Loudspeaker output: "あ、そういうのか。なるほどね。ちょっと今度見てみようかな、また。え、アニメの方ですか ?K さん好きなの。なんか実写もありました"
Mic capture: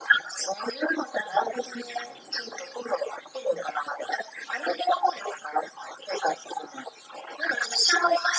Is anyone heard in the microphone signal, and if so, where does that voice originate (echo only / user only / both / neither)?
echo only